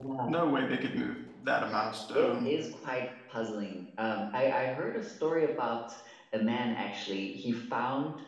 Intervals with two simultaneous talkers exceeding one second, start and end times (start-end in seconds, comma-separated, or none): none